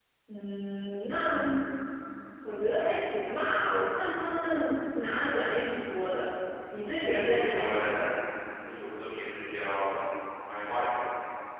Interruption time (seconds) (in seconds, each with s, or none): 6.9 s